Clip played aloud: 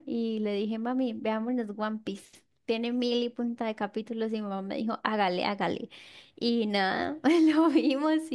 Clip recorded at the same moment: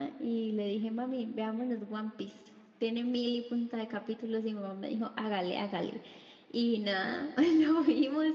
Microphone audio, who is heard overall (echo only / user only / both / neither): echo only